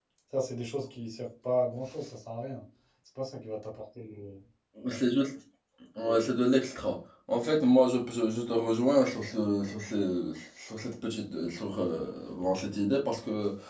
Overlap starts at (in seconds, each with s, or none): none